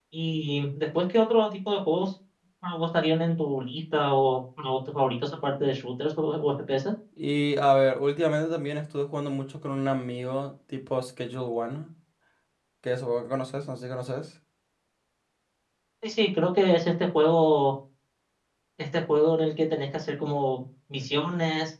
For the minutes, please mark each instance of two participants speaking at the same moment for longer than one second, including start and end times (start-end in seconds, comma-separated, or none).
none